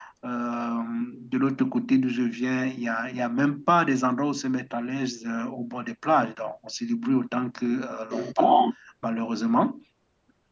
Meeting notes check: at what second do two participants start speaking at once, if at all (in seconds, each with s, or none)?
none